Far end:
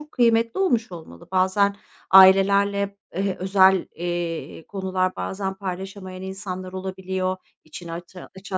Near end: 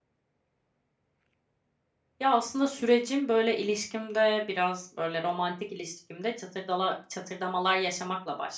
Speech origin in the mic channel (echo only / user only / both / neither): user only